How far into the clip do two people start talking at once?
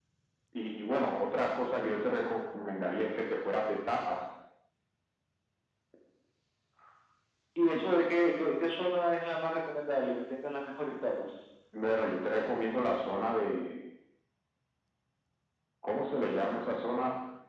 none

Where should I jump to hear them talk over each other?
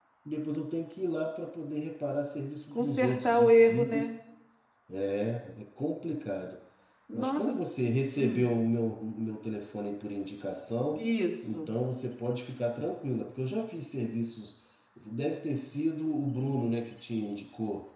2.8 s

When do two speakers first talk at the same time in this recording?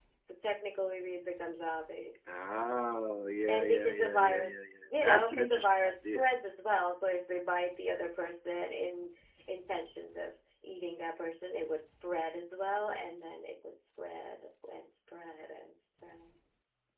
3.5 s

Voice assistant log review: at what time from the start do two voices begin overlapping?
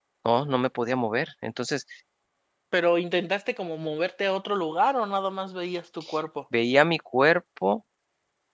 none

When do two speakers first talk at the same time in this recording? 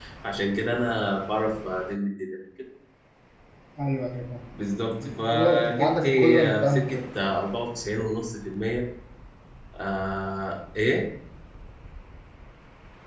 5.0 s

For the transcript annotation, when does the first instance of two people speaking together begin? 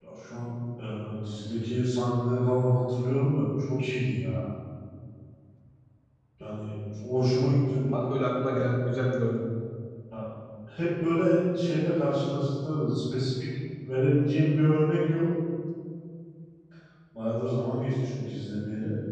none

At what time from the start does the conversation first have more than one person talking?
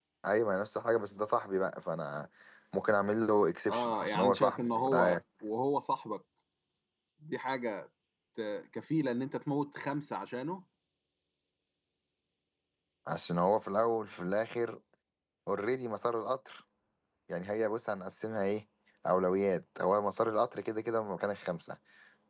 3.7 s

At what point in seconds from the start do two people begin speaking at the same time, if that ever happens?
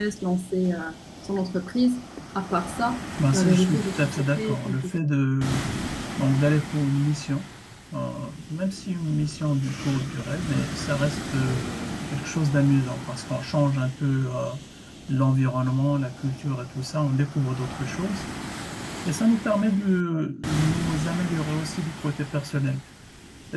3.2 s

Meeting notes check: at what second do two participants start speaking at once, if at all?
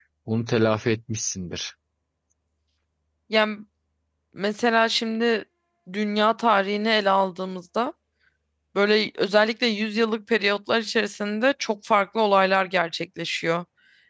none

